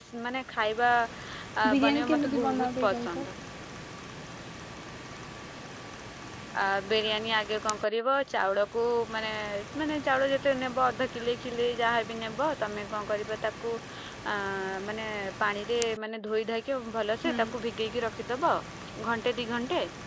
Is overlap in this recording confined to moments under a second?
No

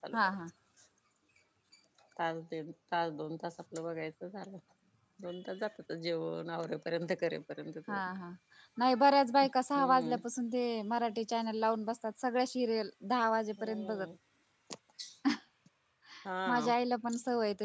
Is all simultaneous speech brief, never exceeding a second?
Yes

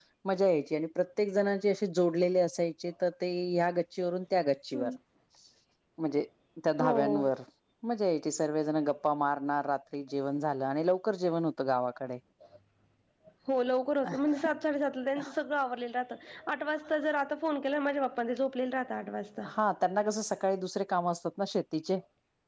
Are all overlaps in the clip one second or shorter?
Yes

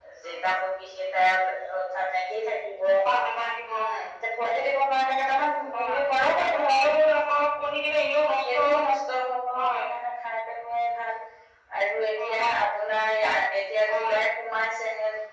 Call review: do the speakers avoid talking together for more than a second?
Yes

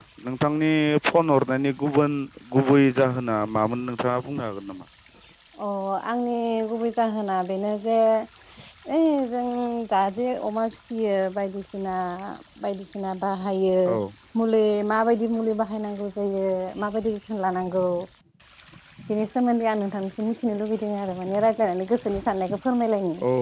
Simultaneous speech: No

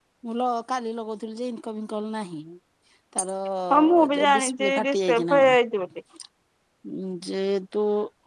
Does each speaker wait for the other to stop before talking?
No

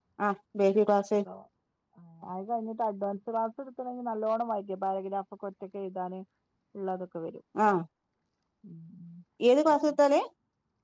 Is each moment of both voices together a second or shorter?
Yes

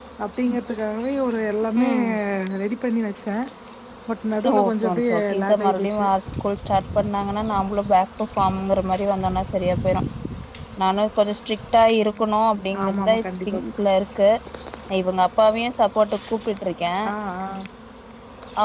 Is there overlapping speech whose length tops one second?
Yes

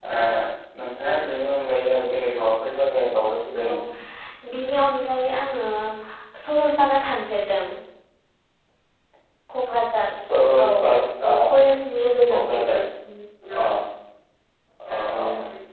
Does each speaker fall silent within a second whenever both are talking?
Yes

